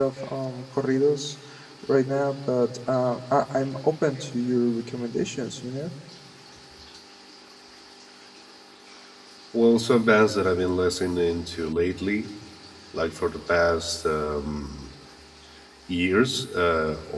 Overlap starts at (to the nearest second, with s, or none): none